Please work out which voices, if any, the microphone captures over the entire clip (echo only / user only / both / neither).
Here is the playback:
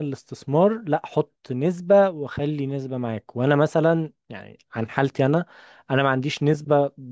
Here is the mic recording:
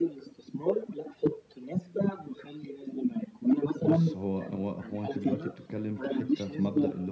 both